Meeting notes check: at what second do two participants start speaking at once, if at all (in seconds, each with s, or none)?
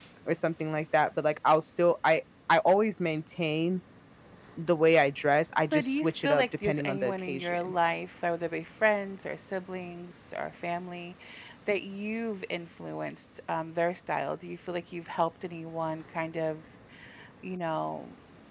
5.7 s